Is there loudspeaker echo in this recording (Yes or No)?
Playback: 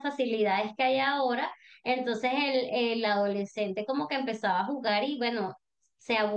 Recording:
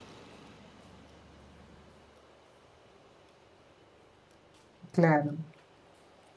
No